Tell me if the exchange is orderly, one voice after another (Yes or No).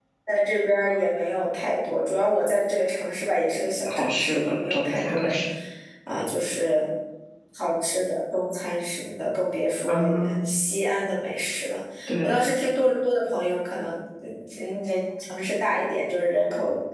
No